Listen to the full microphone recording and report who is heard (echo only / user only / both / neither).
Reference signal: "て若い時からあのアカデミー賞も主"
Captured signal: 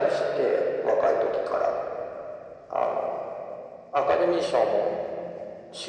echo only